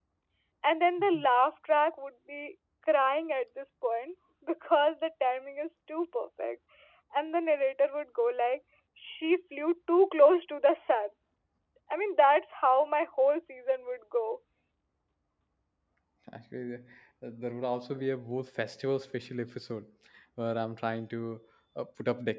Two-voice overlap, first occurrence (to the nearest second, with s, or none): none